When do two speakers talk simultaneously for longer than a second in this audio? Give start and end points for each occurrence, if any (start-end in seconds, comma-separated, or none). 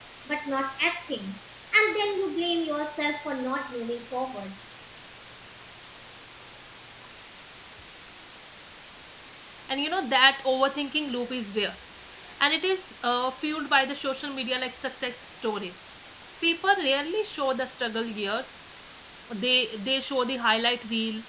none